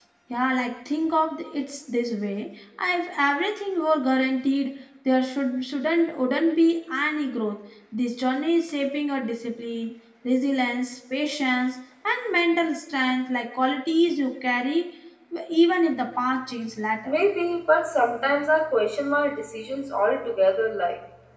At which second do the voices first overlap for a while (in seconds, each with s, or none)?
none